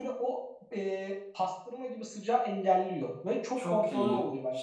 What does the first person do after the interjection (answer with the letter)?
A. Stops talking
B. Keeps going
A